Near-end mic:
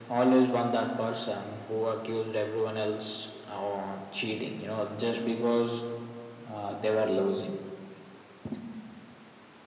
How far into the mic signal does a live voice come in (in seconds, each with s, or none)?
none